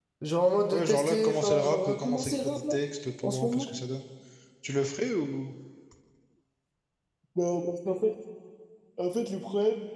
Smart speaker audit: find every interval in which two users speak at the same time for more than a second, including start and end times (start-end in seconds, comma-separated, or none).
0.7-2.8